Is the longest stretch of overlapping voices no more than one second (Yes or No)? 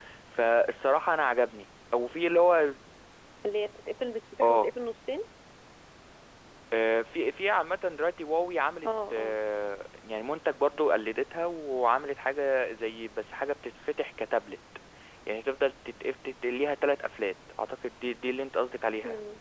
Yes